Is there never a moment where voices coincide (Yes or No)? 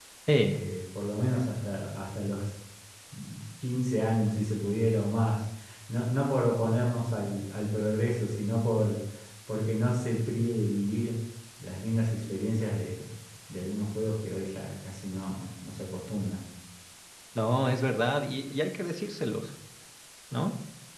Yes